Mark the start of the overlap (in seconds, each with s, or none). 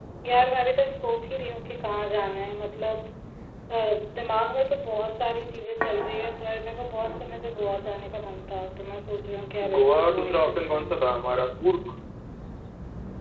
9.6 s